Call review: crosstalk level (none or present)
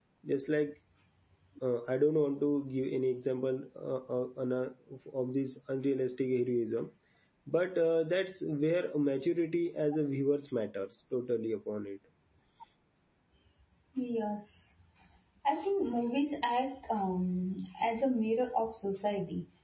none